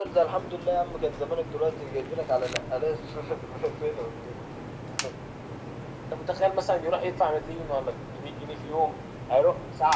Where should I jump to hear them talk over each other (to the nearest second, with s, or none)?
none